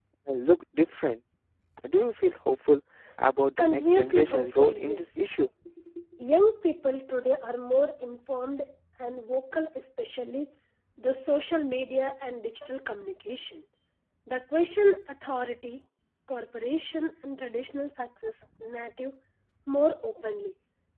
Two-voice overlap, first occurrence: 3.6 s

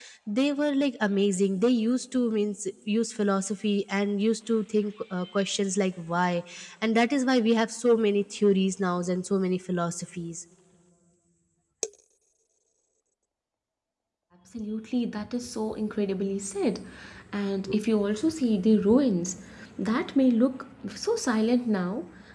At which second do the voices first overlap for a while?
none

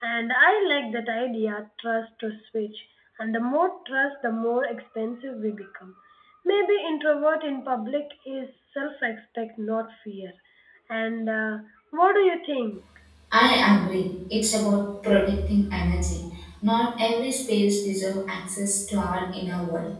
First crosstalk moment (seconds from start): none

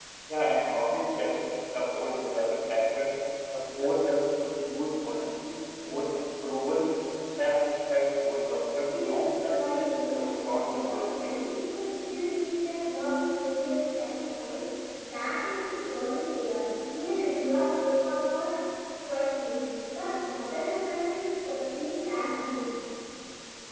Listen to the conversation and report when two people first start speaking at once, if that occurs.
8.8 s

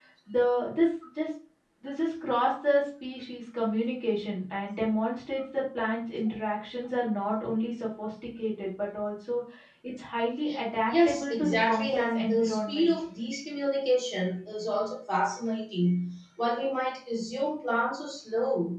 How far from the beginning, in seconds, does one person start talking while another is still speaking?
10.9 s

